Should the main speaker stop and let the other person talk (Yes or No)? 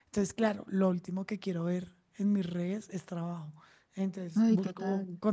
No